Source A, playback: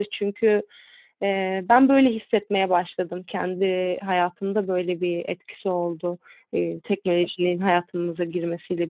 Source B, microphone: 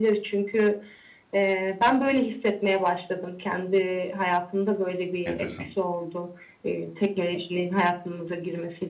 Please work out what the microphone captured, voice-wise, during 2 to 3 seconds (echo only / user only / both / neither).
echo only